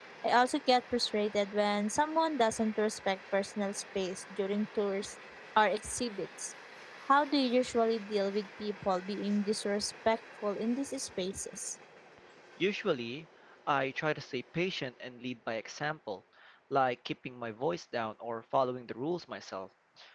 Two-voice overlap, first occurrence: none

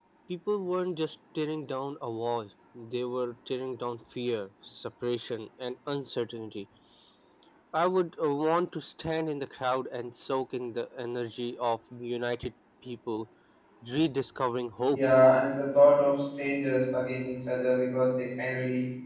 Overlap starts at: none

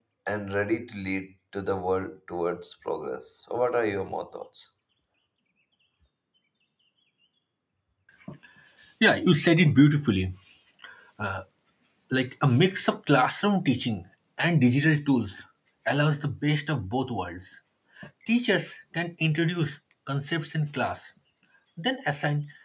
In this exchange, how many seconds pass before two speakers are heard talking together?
none

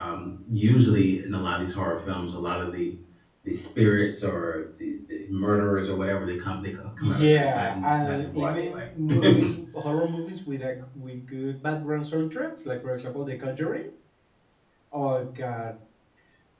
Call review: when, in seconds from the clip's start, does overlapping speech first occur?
7.0 s

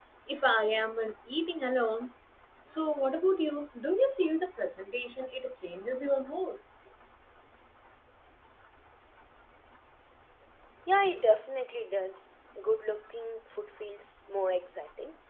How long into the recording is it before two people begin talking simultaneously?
none

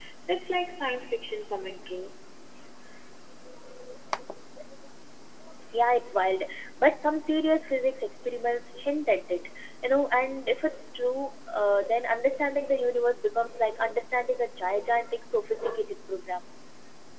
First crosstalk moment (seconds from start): none

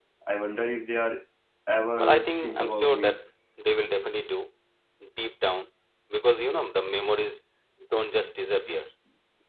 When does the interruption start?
2.0 s

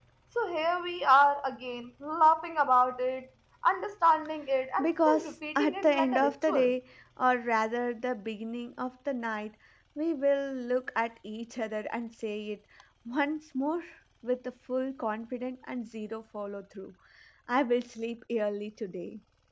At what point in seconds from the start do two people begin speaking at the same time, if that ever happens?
4.8 s

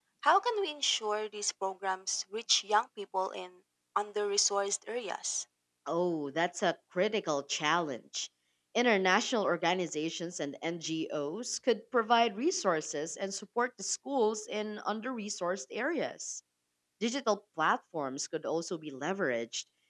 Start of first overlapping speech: none

